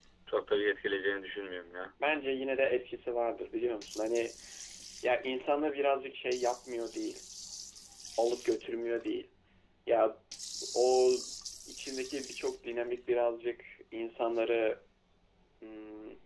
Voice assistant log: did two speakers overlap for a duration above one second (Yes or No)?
No